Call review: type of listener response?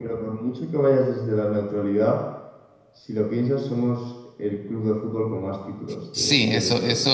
taking over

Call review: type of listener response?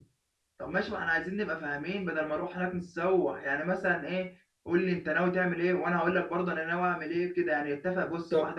listening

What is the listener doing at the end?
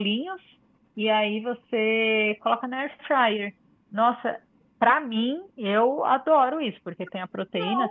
listening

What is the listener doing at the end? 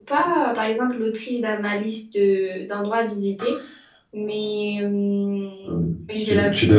taking over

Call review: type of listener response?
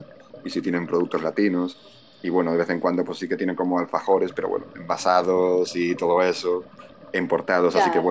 listening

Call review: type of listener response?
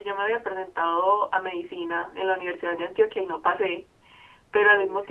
listening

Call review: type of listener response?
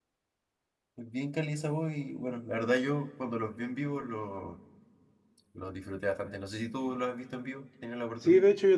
taking over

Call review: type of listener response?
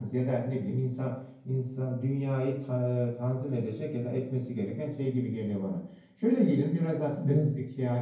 listening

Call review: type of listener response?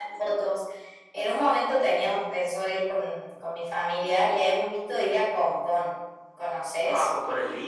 taking over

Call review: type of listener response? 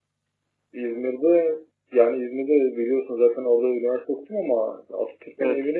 listening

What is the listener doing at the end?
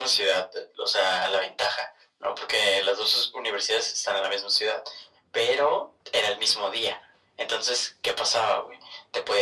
listening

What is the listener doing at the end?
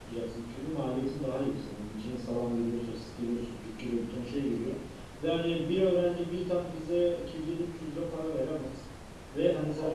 listening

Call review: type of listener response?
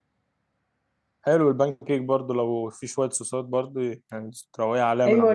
taking over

